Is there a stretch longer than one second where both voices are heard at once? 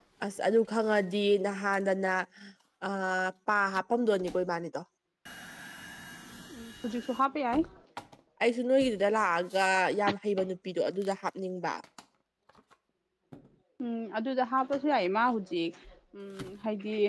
No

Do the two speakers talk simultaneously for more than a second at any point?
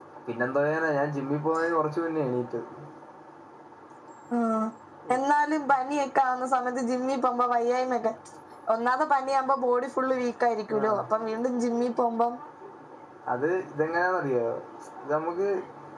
No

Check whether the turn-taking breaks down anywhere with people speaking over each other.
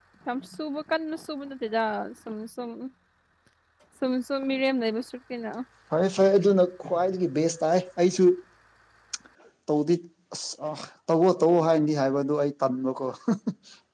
No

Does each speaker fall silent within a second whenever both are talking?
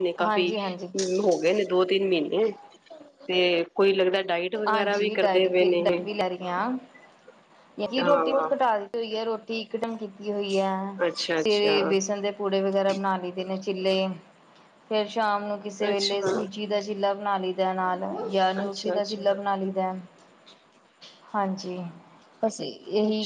No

